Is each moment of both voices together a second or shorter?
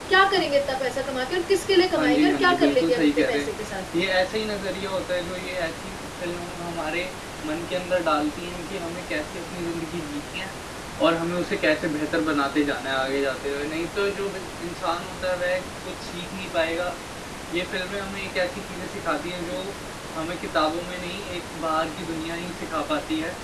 No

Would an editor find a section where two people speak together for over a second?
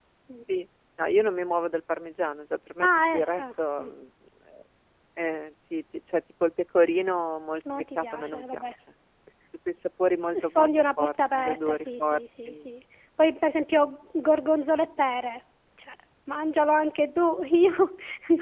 Yes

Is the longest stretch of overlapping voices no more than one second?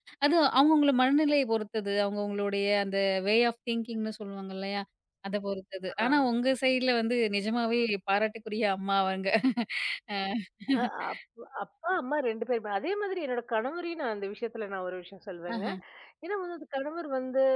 Yes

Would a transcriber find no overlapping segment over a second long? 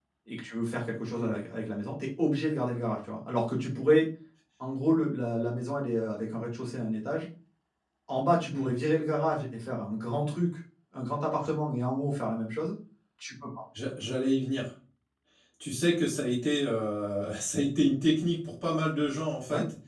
Yes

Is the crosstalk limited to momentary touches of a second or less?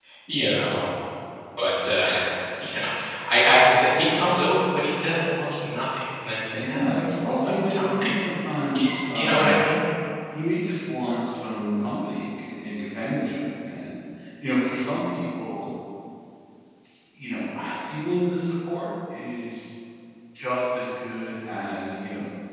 No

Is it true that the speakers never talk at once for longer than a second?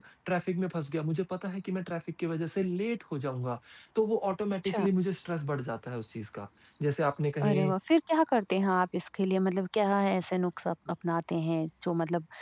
Yes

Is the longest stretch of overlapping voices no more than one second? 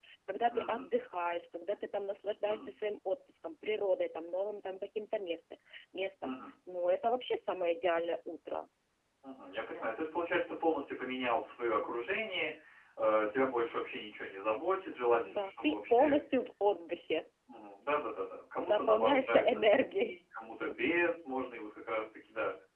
No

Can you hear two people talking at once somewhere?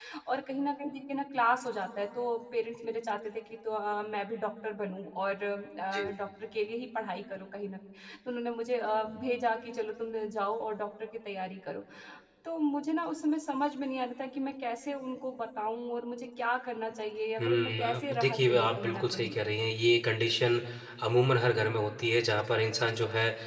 Yes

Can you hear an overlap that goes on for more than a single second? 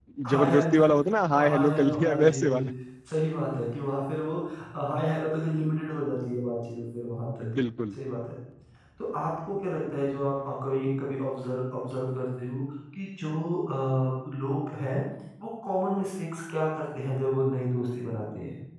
Yes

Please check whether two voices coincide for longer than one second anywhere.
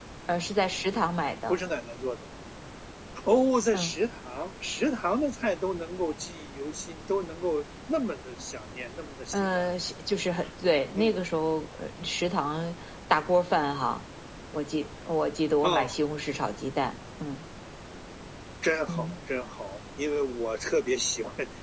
No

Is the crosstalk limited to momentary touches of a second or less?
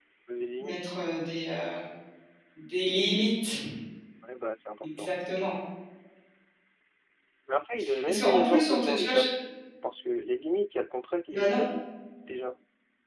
No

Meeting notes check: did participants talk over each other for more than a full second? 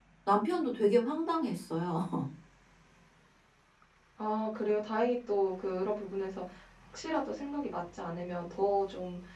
No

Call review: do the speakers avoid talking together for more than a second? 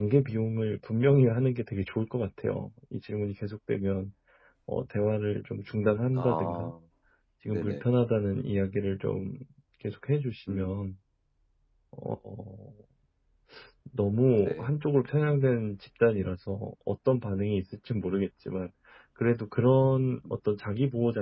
Yes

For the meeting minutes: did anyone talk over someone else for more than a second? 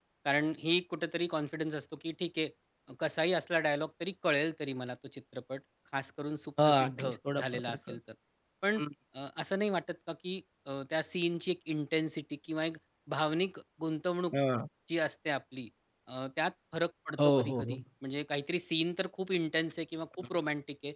Yes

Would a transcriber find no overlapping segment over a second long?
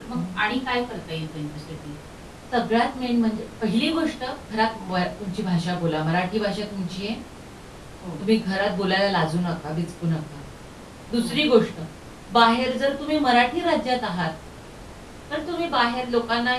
Yes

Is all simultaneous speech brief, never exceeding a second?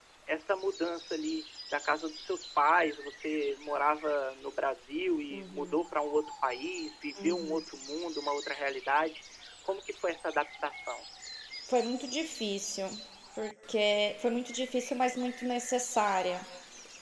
Yes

